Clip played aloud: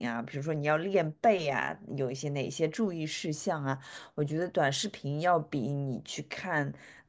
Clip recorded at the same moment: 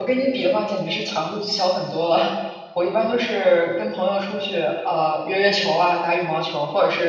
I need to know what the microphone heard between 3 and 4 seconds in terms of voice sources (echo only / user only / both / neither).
user only